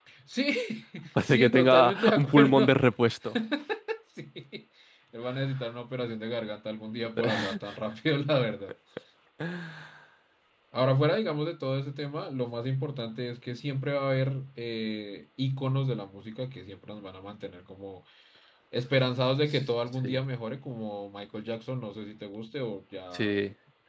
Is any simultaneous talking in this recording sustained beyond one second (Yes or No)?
Yes